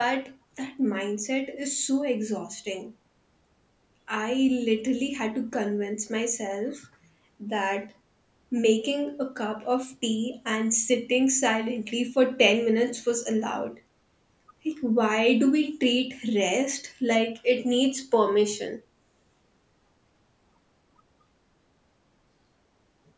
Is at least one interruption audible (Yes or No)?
No